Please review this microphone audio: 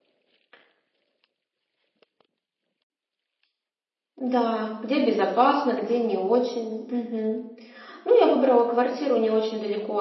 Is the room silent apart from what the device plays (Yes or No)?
No